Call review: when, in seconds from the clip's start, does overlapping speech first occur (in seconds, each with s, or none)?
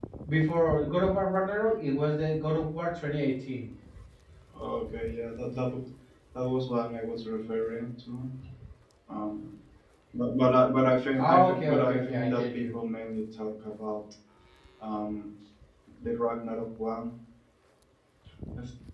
11.2 s